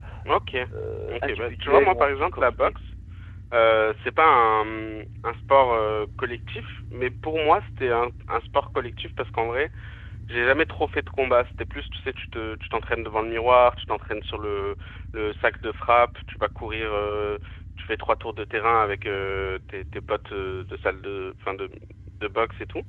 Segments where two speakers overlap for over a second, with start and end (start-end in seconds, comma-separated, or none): 1.1-2.7